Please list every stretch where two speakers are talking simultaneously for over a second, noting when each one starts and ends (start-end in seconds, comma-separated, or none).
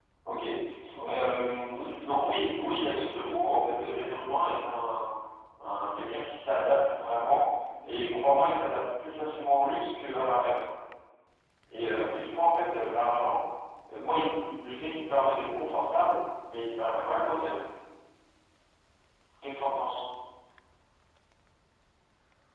1.7-3.6